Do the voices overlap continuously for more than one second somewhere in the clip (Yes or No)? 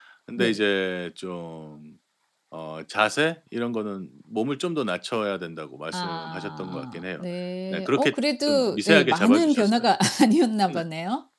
Yes